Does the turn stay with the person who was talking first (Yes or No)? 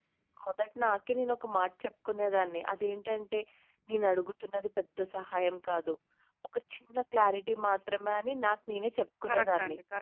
No